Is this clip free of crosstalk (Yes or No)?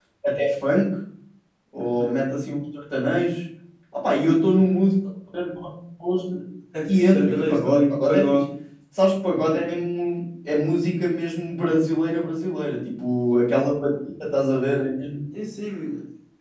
No